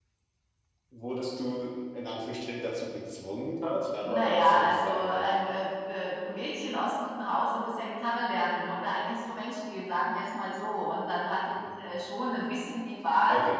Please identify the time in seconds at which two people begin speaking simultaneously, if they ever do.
4.1 s

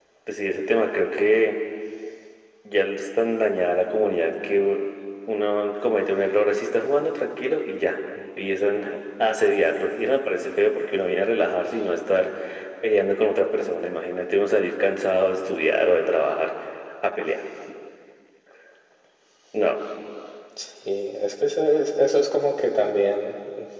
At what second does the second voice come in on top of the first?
none

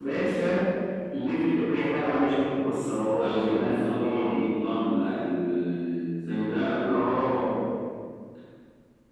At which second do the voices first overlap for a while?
3.2 s

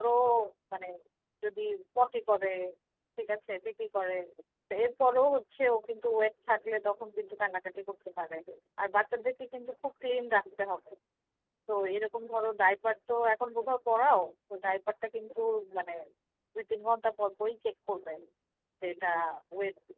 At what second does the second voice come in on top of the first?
none

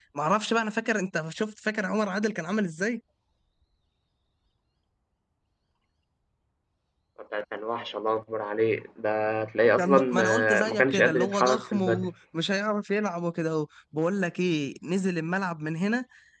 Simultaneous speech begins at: 9.8 s

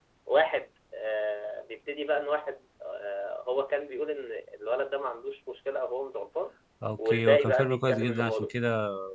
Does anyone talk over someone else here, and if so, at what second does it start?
7.0 s

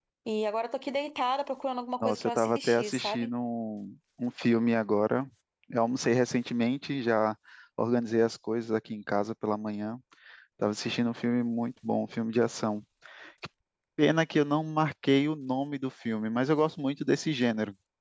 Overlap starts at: 2.0 s

